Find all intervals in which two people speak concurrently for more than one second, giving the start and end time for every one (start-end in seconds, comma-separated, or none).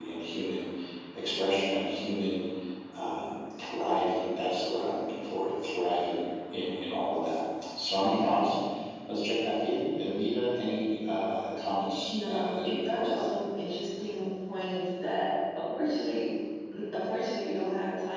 12.0-13.2